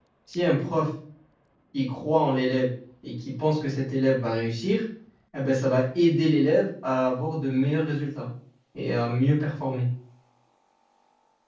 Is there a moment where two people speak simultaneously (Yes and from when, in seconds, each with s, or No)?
No